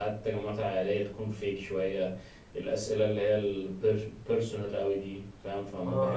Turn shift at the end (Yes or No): Yes